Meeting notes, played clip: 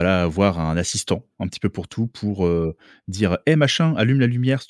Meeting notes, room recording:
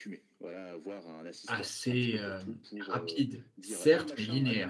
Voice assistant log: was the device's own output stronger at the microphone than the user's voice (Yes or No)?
No